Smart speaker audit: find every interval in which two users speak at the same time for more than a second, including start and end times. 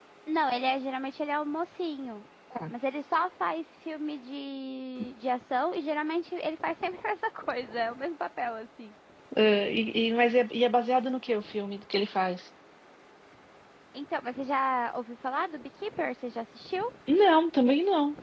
none

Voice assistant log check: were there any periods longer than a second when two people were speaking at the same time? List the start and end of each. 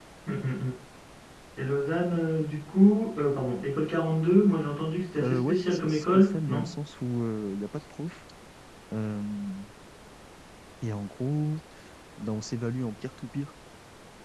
5.2-6.7

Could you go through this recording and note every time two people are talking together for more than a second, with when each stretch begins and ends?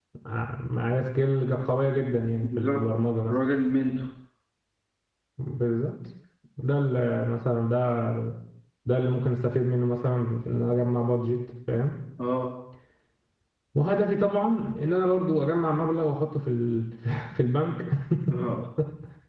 none

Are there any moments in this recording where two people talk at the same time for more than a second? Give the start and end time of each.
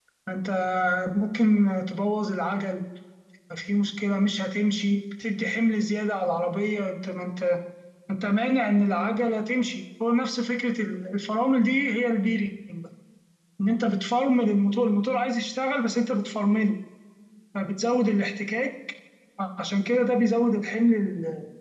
none

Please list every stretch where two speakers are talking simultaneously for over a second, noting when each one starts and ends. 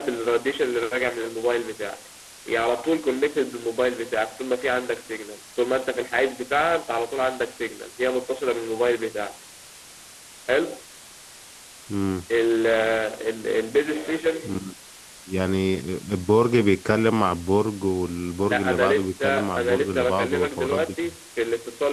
18.5-21.1

